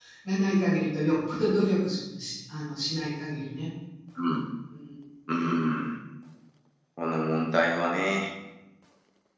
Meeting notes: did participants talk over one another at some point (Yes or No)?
No